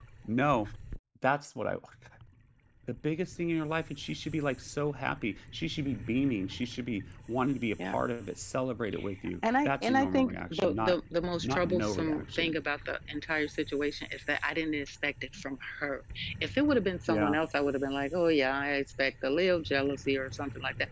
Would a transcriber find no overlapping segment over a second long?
No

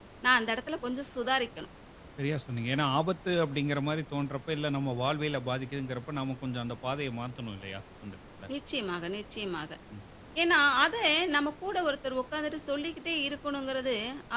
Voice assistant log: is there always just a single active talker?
Yes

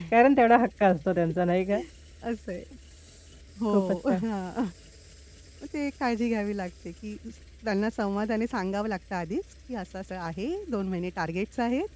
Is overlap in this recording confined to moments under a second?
Yes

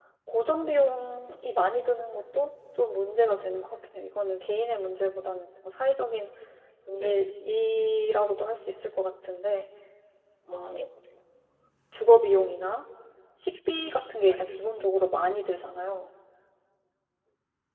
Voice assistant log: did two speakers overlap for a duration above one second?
Yes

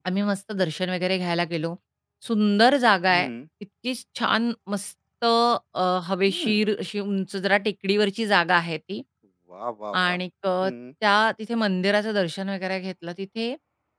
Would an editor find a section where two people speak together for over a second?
No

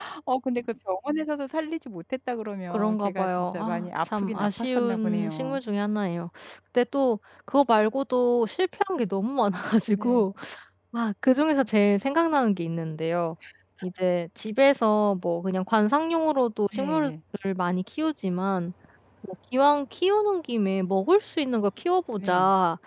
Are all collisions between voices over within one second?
No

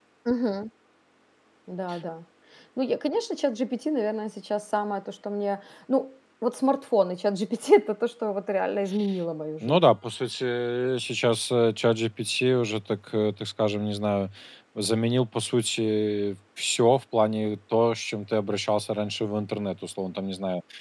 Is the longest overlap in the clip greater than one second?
No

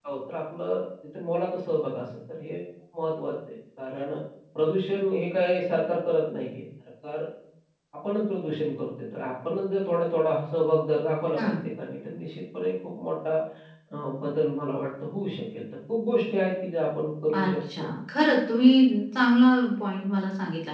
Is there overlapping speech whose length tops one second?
No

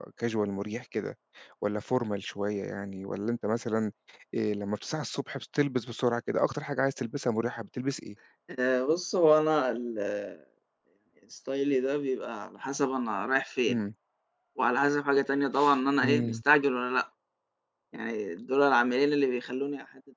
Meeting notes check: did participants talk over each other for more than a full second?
No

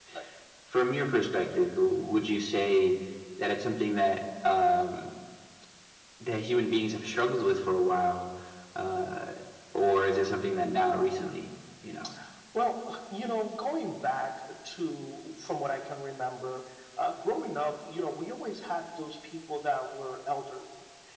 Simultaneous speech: No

